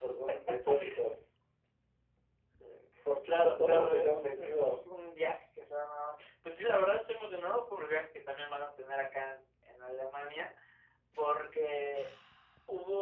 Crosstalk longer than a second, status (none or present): present